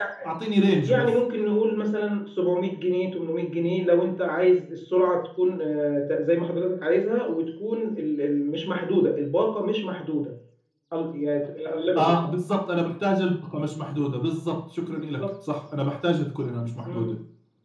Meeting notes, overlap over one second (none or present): none